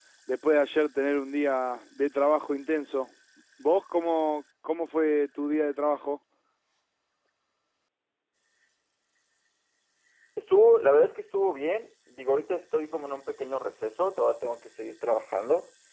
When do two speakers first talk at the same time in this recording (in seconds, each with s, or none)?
none